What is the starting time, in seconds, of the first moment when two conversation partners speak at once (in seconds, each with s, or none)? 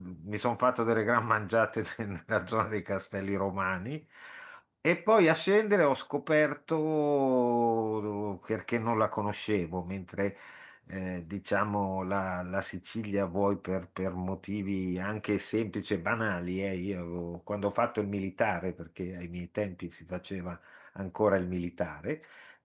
none